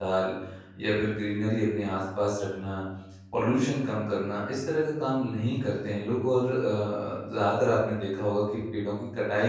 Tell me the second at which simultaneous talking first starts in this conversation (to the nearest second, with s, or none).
none